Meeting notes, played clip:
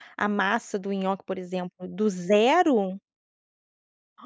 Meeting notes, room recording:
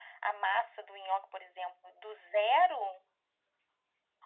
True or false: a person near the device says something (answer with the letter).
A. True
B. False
B